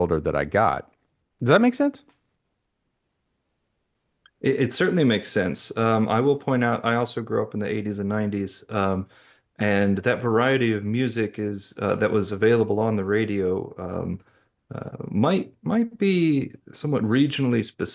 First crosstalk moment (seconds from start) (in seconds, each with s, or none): none